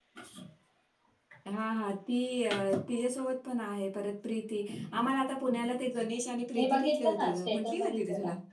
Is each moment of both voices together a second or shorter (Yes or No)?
No